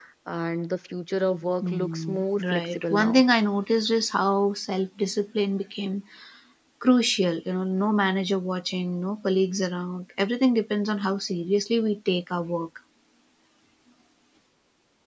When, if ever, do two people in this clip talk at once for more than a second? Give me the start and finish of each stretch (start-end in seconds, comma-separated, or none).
1.6-3.2